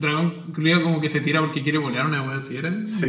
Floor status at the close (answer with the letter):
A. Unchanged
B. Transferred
B